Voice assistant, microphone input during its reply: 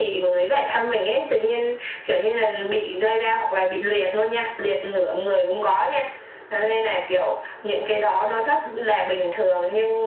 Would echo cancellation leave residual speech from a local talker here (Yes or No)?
No